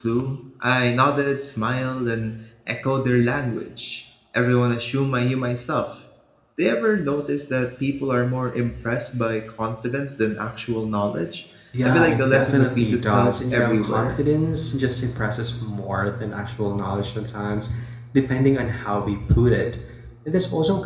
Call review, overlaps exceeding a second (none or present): present